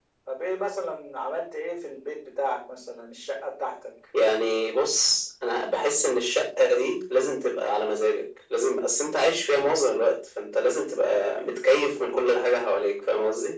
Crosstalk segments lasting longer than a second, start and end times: none

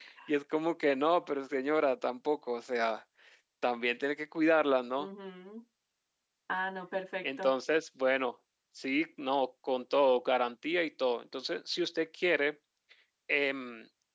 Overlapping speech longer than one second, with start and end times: none

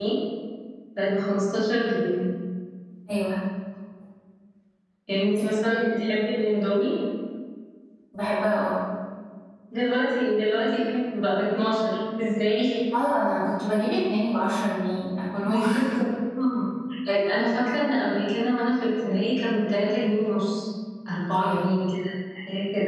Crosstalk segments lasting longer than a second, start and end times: none

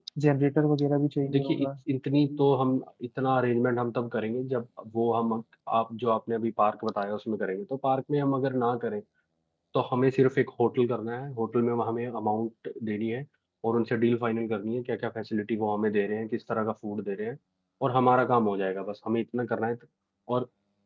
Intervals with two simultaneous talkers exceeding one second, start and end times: none

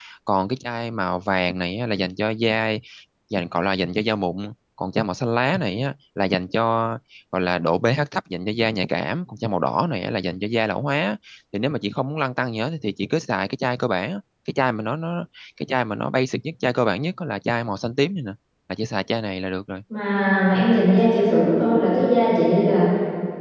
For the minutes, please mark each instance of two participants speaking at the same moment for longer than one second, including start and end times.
none

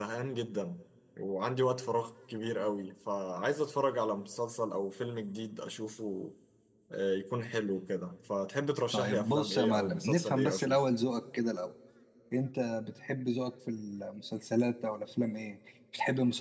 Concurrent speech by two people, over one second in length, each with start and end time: 8.9-10.8

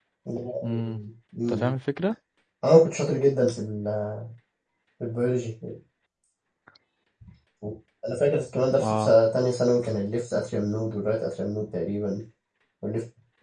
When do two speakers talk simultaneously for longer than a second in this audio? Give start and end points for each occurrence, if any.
none

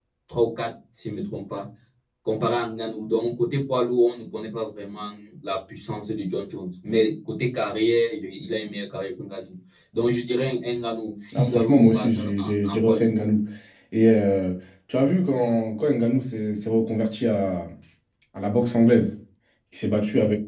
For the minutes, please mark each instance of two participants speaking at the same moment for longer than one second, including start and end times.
11.3-13.1

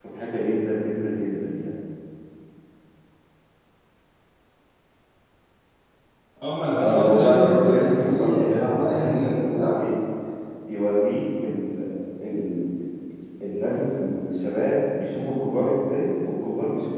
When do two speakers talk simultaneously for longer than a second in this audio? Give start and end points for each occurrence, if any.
6.8-9.8

